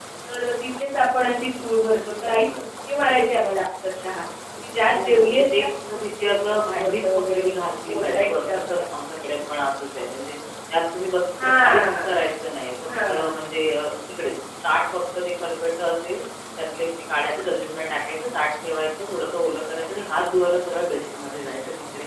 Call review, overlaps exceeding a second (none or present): present